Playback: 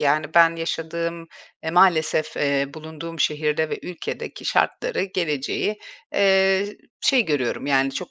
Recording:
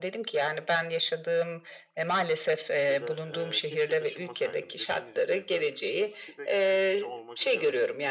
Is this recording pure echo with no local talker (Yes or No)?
No